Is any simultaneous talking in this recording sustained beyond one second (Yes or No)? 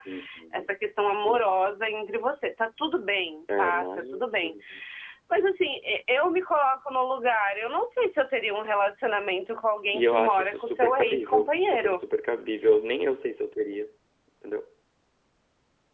Yes